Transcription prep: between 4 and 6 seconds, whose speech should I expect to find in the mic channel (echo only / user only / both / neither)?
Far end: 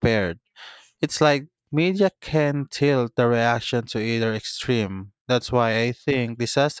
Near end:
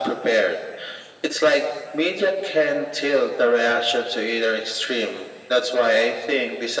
echo only